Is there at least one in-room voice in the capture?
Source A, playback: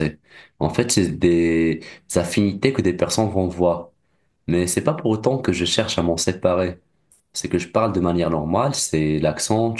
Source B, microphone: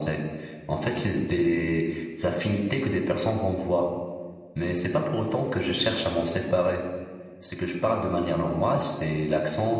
No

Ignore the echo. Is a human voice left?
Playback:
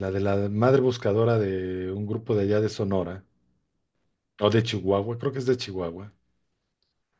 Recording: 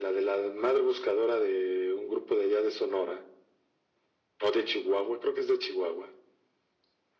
No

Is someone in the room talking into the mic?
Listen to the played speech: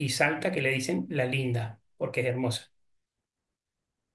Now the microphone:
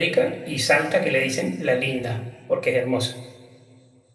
No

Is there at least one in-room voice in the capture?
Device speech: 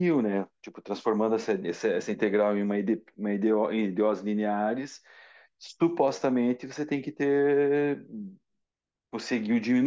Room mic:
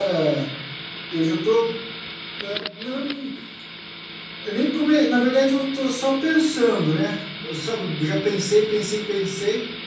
Yes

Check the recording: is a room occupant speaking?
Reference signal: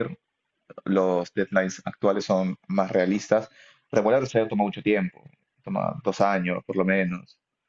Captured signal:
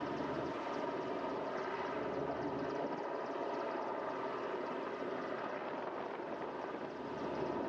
No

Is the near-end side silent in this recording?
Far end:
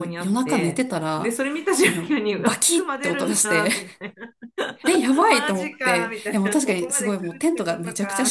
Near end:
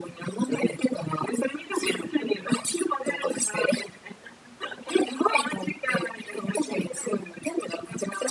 Yes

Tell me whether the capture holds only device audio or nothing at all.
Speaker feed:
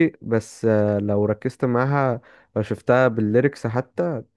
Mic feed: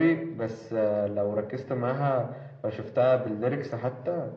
Yes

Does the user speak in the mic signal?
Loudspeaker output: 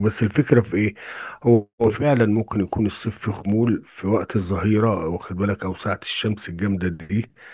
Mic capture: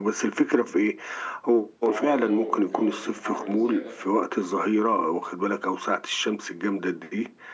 Yes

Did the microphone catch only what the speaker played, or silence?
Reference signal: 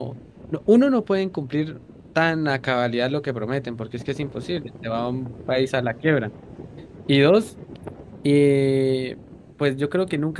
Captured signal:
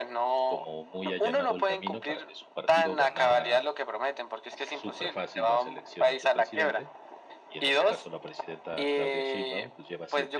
No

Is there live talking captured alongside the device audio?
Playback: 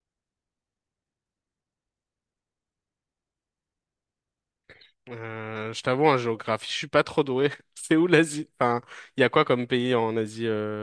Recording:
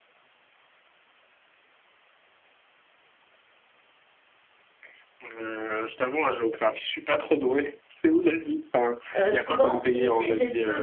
Yes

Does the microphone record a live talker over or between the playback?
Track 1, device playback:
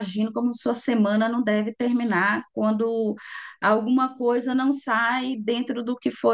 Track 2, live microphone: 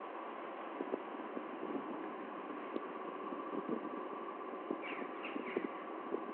No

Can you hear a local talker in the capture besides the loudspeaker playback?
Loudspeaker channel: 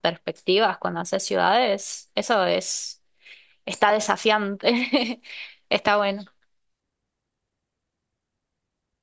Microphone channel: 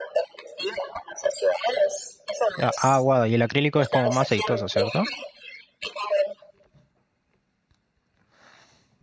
Yes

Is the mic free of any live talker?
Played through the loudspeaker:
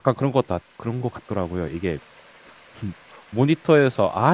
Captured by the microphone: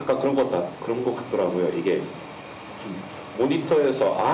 Yes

